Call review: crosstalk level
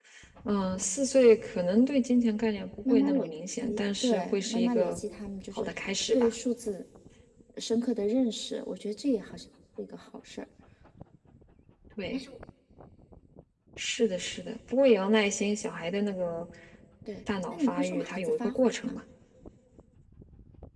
present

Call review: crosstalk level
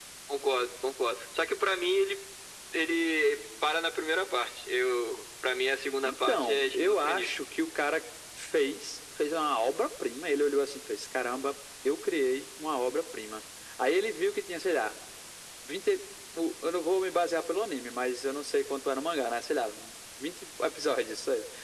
present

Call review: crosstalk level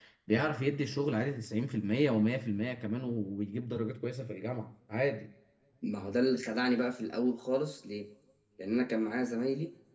none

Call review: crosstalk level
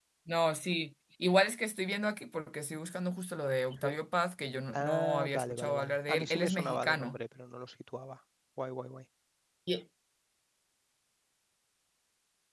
present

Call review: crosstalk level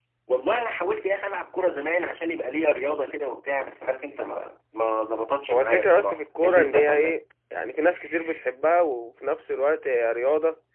present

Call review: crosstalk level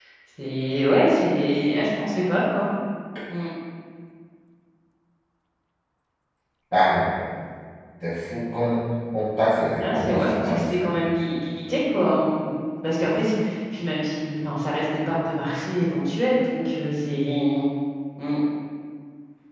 present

